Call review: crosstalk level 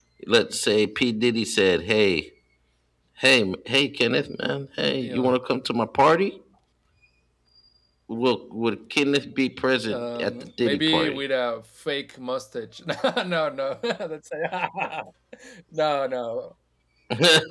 present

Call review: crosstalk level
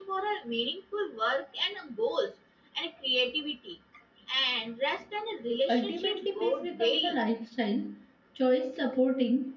present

